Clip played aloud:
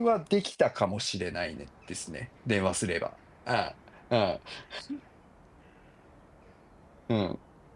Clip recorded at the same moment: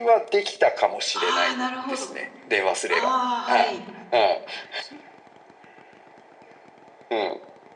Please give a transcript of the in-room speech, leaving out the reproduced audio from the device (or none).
ああ、なるほど。ああ、はい。